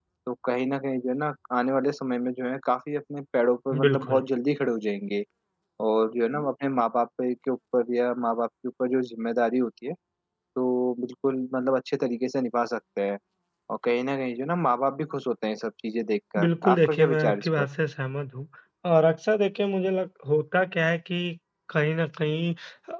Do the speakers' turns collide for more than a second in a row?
Yes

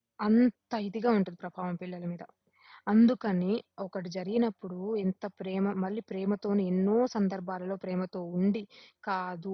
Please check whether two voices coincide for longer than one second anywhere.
No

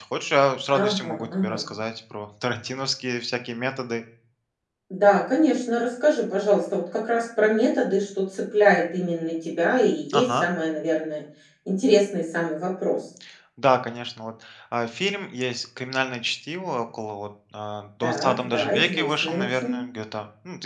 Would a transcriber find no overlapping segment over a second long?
No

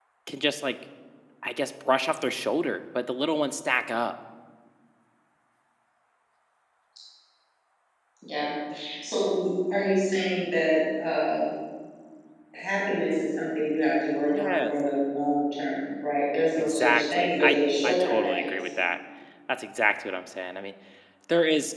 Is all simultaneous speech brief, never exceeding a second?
No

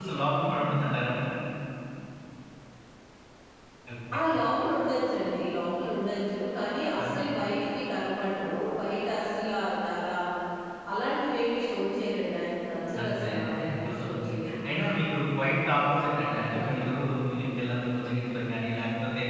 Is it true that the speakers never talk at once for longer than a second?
No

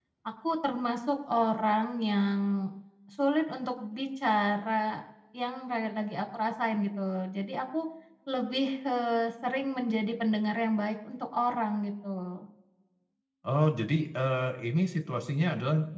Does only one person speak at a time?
Yes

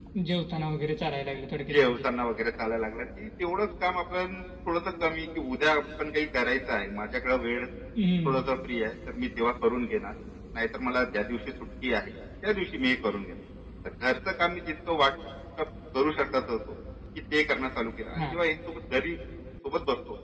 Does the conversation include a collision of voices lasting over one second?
No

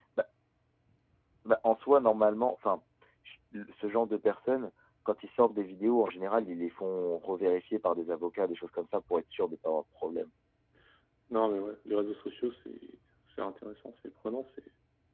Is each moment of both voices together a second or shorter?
Yes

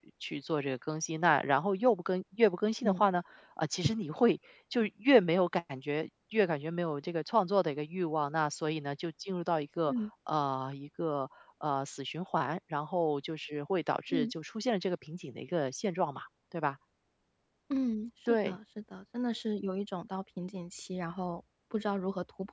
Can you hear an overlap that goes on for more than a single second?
No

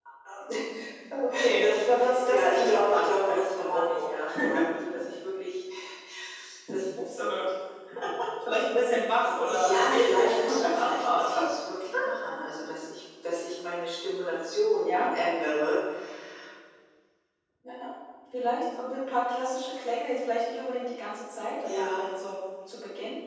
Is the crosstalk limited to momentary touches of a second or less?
No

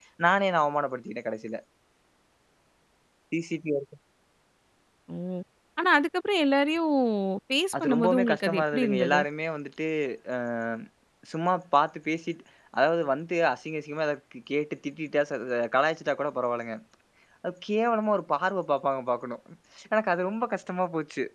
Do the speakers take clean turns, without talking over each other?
No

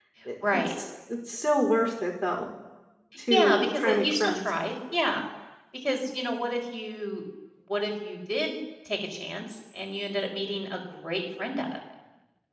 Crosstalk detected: Yes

